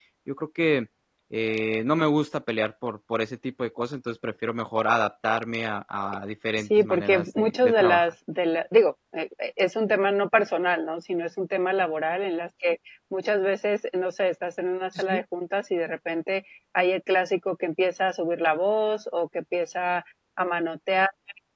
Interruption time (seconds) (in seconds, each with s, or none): 6.6 s